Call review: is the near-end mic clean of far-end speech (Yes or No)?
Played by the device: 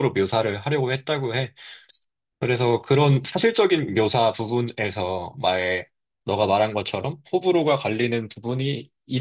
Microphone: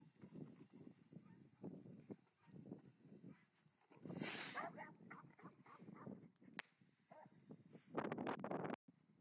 Yes